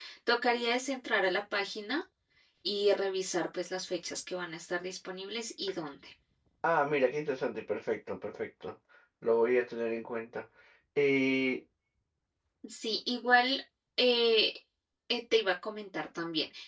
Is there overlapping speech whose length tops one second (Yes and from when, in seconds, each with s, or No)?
No